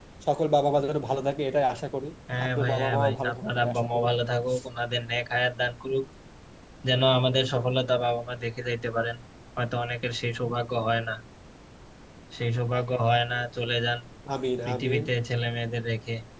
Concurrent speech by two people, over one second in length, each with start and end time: 2.5-4.0

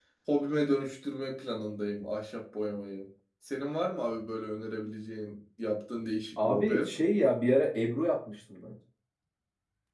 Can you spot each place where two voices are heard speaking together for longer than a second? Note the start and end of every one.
none

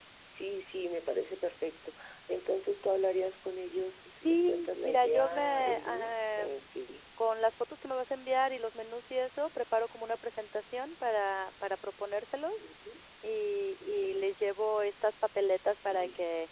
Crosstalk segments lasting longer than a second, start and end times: 4.2-6.6

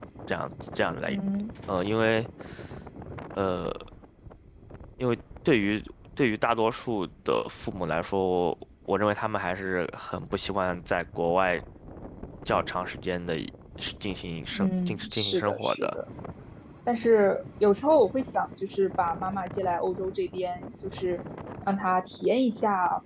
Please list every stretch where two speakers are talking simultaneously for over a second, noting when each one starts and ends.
14.5-16.0

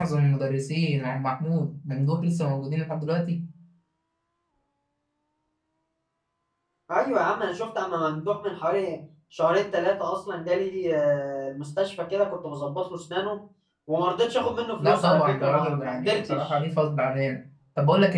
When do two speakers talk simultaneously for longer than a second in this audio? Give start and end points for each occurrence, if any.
14.8-16.6

